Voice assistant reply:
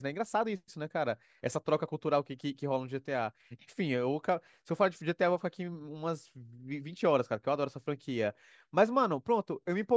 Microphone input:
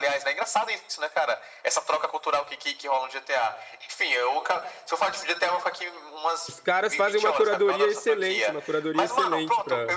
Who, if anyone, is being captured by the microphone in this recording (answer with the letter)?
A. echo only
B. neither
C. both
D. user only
C